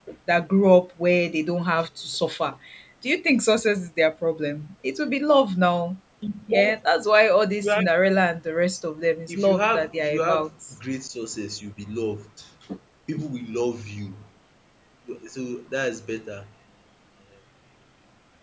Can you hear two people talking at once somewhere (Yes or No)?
Yes